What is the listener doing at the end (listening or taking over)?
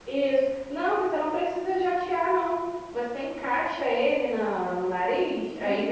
listening